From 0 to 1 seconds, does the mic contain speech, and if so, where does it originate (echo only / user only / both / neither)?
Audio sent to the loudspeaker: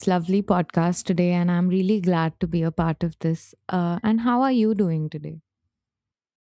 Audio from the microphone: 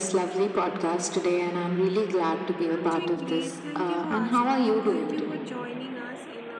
echo only